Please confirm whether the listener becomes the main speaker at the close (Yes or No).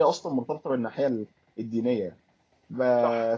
No